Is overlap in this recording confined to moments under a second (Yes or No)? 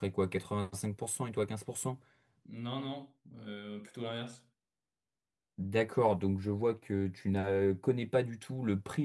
Yes